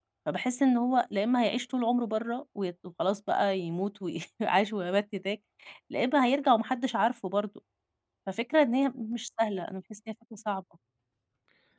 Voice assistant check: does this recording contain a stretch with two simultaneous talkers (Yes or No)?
No